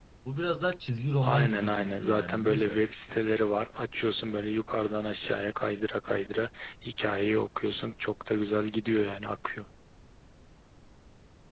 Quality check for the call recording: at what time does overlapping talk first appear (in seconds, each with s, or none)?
1.2 s